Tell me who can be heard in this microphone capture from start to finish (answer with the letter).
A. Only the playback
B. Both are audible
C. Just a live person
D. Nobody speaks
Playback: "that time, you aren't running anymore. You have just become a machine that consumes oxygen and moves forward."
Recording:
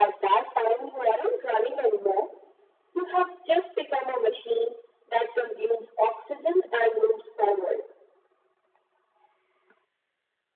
A